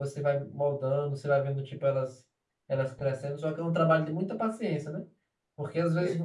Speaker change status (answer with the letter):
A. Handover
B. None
B